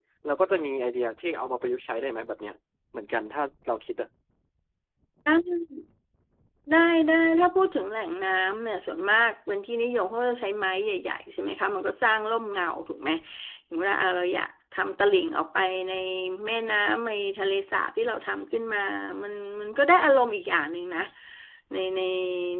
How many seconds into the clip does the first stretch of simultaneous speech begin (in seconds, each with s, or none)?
none